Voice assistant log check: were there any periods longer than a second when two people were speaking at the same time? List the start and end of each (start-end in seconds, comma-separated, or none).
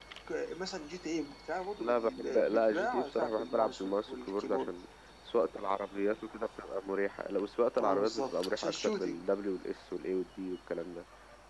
1.8-4.7, 7.8-9.2